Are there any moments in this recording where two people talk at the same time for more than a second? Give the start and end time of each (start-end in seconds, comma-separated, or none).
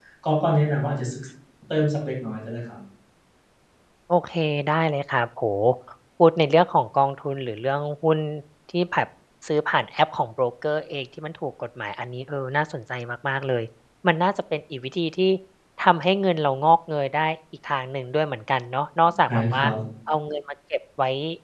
none